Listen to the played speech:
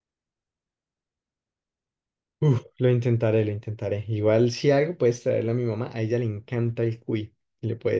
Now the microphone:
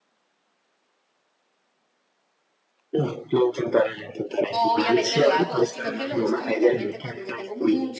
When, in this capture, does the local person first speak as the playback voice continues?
4.4 s

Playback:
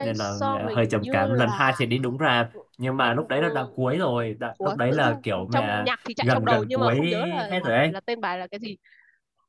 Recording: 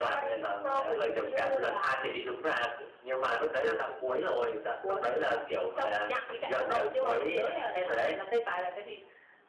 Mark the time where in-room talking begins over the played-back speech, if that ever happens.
none

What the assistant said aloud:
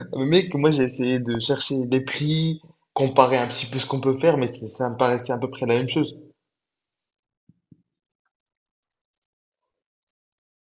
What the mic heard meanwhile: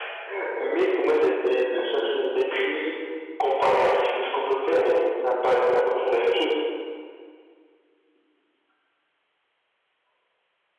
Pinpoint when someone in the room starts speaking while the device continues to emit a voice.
none

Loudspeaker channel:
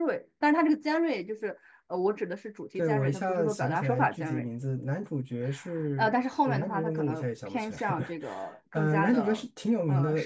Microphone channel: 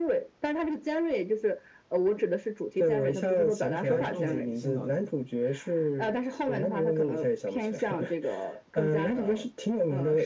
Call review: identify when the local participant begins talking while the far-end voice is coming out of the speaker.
3.8 s

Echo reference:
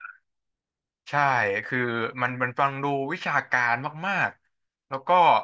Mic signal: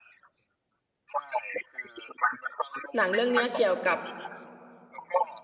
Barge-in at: 3.0 s

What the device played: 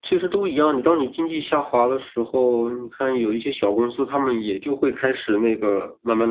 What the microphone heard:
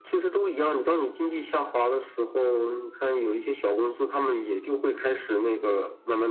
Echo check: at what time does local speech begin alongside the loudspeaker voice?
none

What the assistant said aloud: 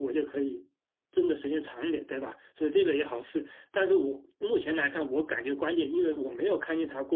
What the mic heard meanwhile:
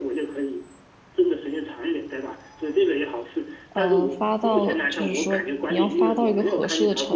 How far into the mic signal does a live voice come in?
3.7 s

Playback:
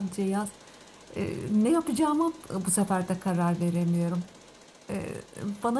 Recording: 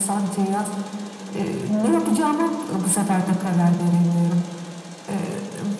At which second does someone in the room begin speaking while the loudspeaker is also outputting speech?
none

